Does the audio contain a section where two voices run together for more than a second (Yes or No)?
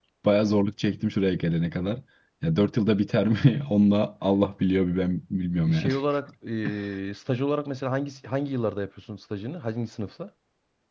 No